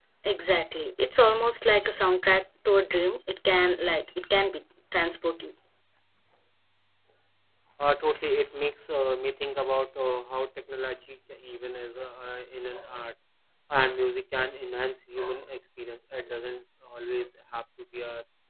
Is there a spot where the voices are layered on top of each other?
No

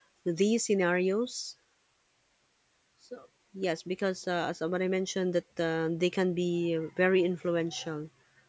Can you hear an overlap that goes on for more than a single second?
No

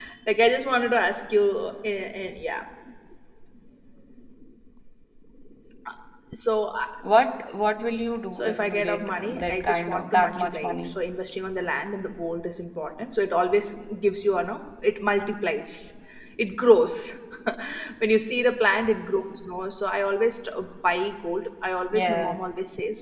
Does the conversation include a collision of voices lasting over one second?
Yes, from 8.3 s

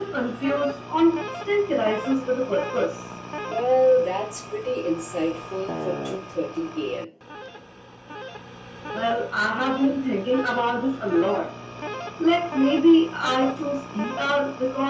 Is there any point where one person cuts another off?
No

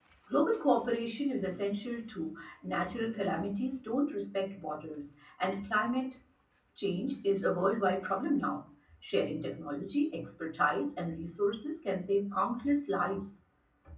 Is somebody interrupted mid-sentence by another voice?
No

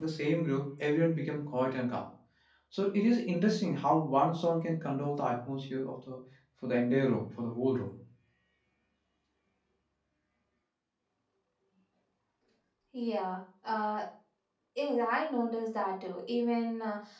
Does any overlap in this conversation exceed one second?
No

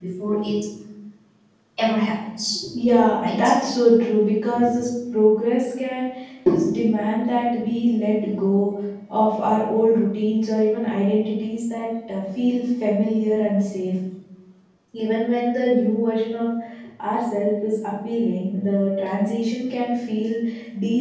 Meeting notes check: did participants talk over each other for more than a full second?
No

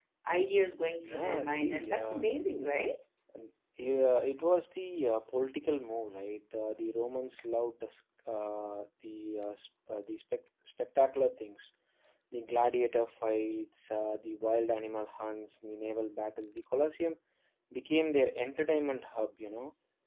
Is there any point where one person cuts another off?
Yes, from 1.0 s

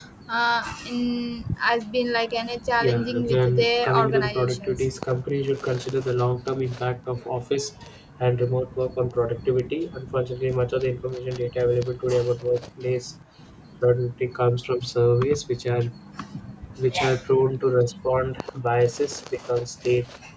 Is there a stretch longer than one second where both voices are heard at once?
Yes, from 2.8 s

